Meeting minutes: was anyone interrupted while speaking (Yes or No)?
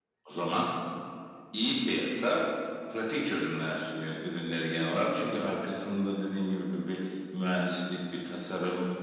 No